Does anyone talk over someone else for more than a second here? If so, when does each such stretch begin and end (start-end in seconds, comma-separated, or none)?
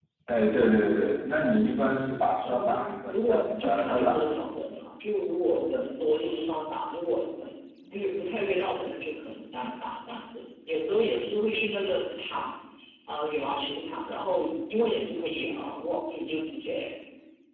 2.5-4.3